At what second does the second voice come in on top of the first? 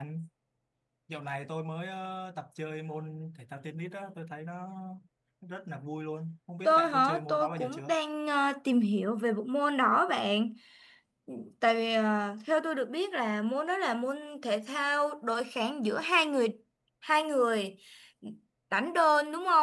6.6 s

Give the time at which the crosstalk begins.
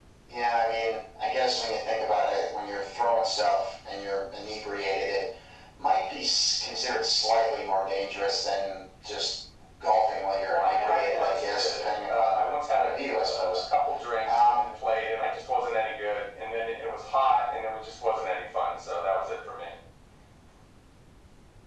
10.5 s

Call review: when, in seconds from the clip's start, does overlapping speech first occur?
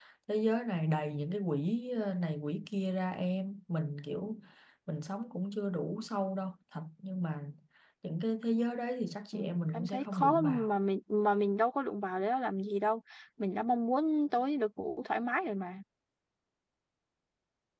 9.3 s

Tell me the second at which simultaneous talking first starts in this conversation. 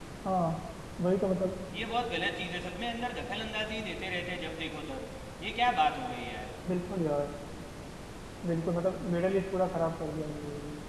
none

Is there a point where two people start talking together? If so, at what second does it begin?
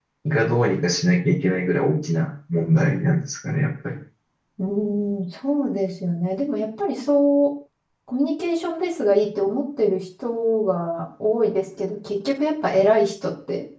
none

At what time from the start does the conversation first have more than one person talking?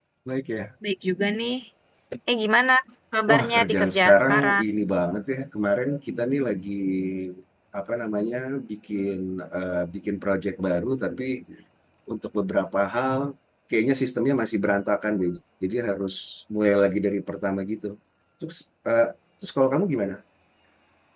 3.3 s

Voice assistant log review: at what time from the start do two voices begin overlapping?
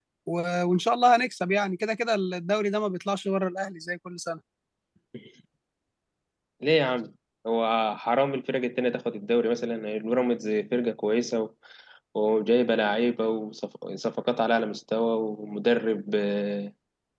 none

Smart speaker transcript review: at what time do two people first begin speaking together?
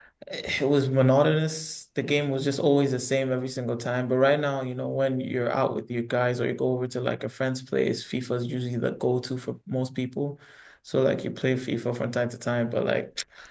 none

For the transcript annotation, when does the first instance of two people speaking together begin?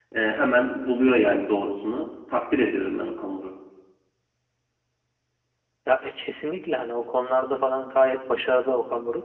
none

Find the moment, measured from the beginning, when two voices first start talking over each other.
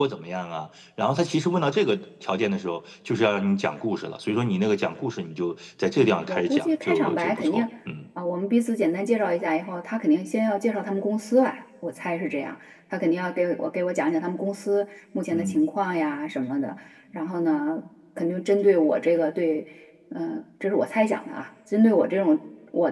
6.0 s

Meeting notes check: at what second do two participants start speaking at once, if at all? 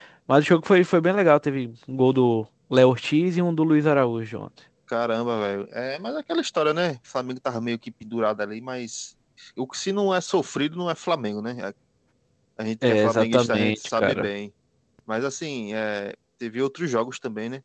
12.9 s

